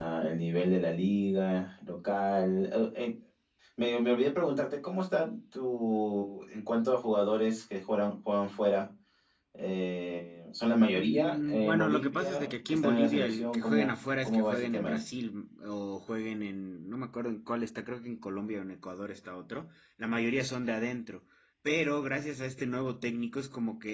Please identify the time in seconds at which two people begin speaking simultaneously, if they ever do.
11 s

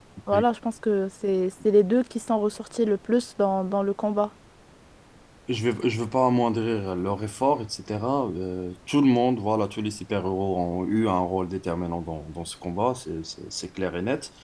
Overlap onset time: none

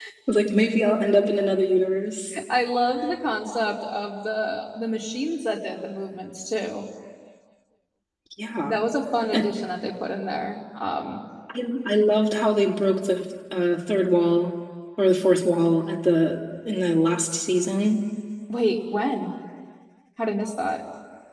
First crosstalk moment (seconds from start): none

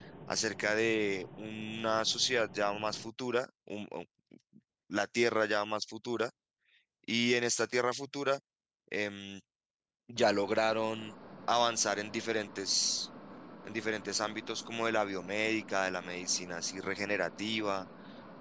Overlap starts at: none

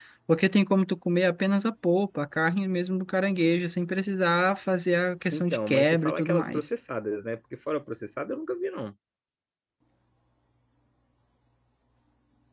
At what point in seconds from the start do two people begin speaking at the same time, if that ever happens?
5 s

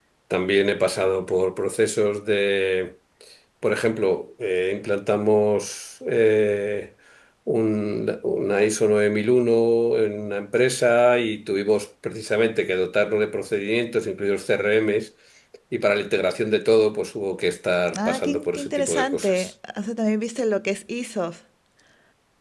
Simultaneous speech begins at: 18 s

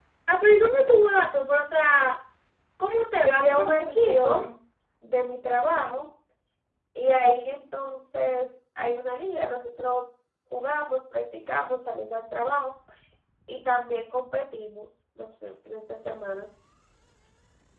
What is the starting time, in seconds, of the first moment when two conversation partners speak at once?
3 s

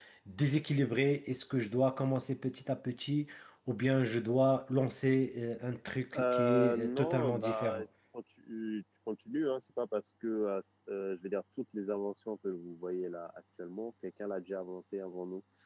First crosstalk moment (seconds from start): 6 s

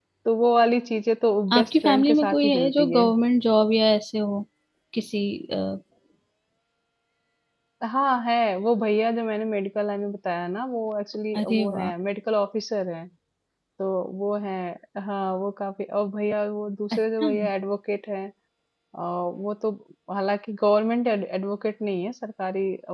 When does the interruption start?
2 s

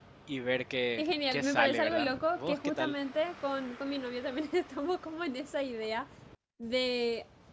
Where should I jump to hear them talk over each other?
1 s

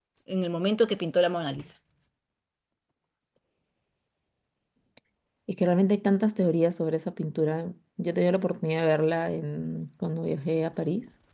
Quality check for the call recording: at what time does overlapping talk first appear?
none

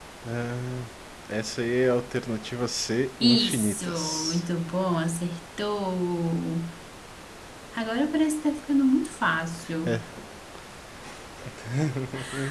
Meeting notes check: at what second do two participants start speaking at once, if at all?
3 s

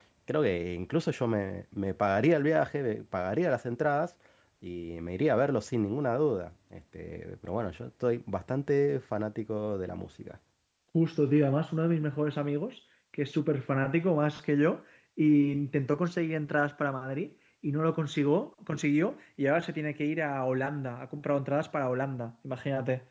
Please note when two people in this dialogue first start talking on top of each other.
none

